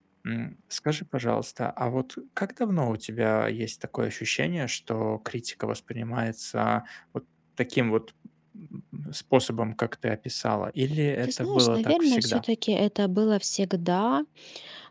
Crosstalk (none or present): present